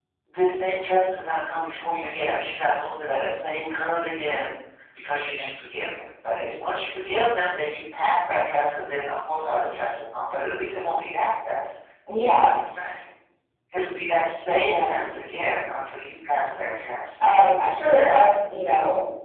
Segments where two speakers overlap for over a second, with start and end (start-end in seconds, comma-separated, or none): none